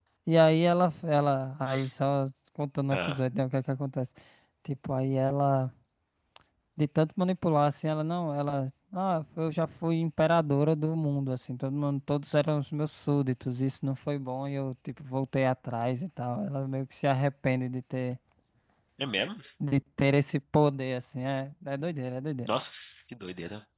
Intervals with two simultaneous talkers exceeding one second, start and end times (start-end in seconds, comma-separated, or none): none